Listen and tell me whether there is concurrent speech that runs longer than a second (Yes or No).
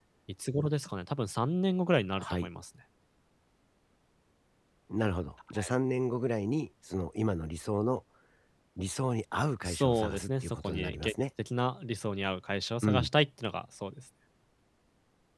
Yes